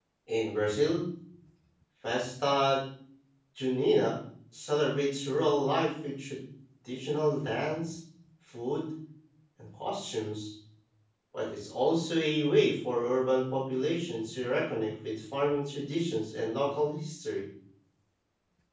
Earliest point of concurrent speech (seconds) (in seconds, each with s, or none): none